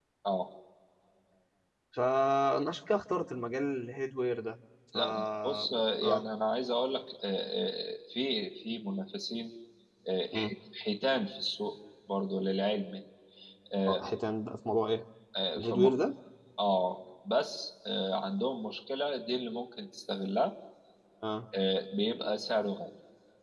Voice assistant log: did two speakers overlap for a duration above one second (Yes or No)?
Yes